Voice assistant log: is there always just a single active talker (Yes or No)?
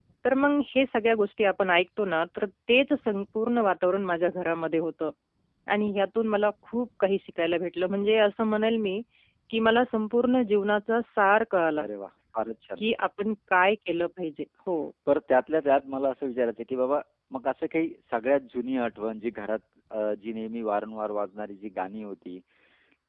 Yes